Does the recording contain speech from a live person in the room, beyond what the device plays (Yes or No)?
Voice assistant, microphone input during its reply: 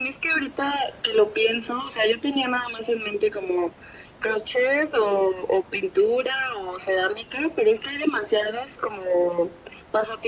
No